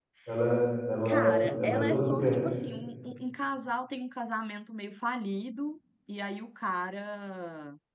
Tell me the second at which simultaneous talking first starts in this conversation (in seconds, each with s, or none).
1.1 s